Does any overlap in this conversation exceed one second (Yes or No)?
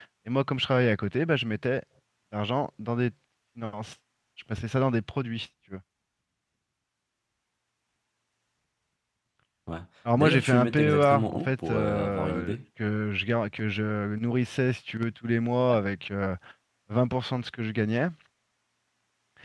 Yes